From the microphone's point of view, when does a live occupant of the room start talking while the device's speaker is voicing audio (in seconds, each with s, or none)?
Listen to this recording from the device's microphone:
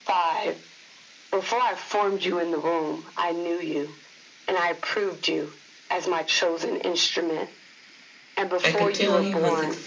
8.6 s